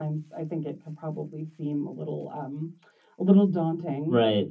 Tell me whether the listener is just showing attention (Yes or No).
No